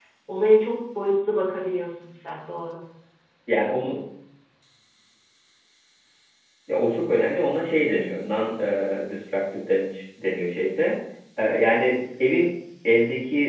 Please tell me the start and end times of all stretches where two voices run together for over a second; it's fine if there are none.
none

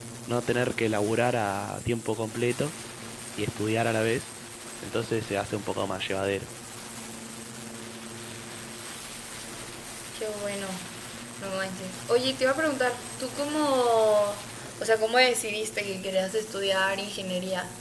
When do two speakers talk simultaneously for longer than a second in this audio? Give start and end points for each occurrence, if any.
none

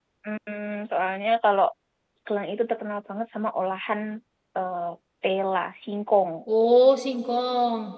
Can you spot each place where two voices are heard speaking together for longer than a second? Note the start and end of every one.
none

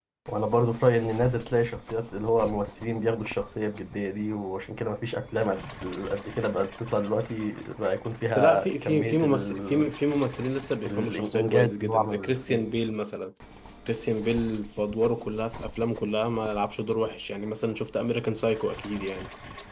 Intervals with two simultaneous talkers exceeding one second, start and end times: 8.3-9.8, 10.9-12.6

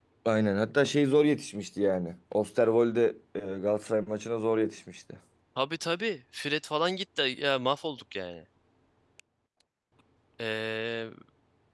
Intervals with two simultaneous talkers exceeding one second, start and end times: none

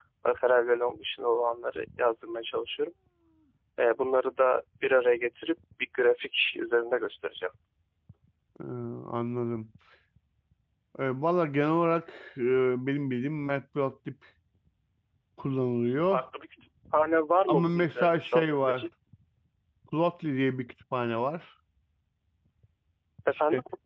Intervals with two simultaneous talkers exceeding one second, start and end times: 17.5-18.9

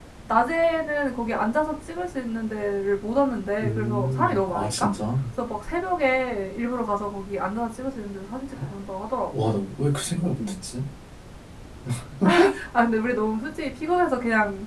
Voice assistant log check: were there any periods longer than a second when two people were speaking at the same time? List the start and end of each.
3.6-4.9

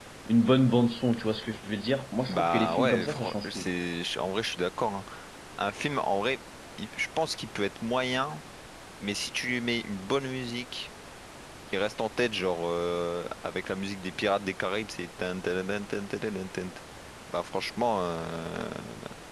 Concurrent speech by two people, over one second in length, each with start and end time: 2.3-3.7

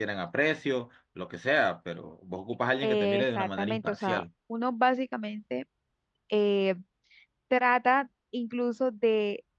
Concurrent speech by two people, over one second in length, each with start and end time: 2.8-4.2

